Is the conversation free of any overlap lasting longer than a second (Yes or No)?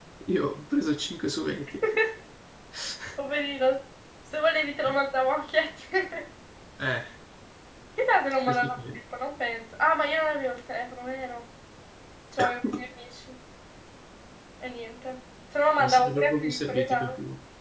No